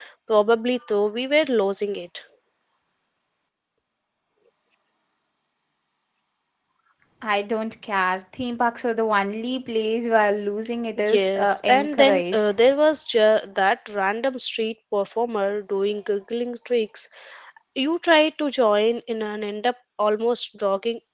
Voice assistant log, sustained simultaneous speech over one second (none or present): present